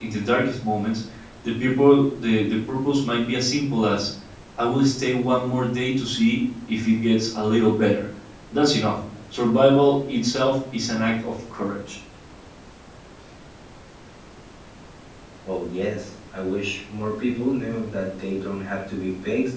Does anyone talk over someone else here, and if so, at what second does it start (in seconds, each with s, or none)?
none